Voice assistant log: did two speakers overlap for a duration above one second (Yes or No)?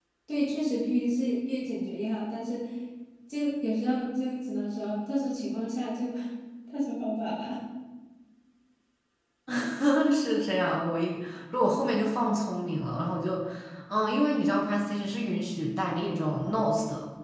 No